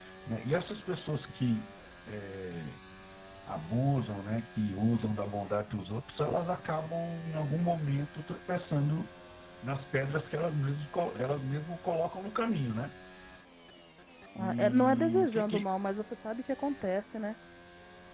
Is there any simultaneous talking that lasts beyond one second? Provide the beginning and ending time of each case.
14.4-15.6

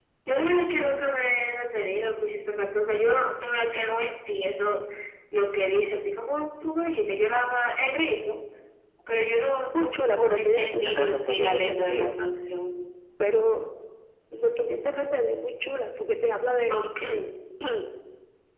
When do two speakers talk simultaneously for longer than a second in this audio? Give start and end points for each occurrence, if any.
9.7-12.1

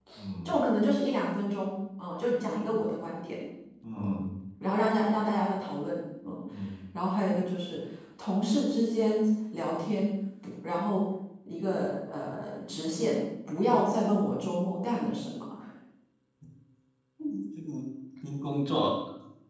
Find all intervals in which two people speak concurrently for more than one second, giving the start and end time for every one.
none

